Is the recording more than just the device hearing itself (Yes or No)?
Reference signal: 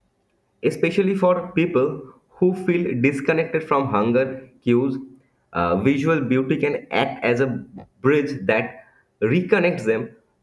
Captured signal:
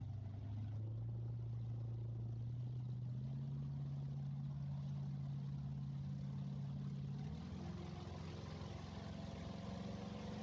No